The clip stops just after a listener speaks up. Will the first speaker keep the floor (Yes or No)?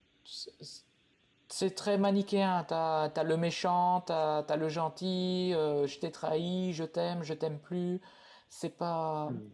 Yes